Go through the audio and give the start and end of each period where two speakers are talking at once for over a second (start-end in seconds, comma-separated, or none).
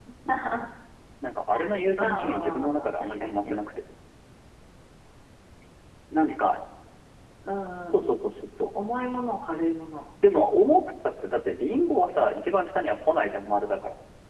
2.0-3.5